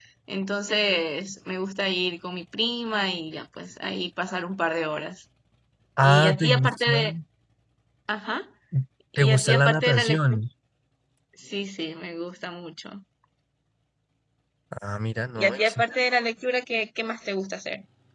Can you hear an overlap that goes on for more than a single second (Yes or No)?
Yes